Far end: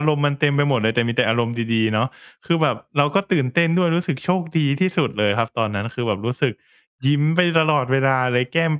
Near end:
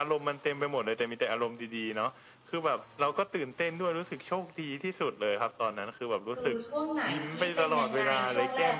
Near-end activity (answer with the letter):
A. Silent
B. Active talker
B